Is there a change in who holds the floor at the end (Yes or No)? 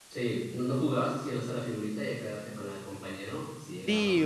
Yes